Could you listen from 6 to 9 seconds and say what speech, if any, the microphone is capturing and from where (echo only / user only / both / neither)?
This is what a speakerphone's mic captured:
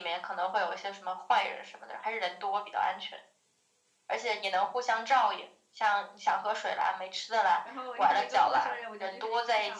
both